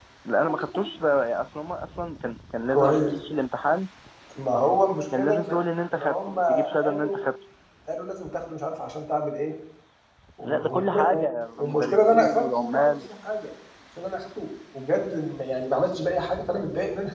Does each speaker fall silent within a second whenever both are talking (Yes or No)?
No